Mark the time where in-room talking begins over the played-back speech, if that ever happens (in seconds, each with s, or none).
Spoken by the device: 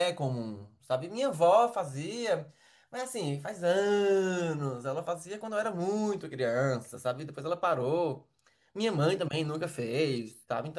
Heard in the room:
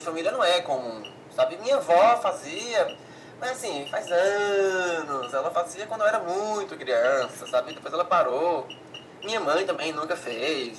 none